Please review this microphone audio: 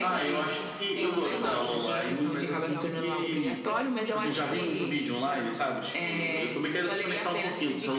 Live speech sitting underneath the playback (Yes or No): Yes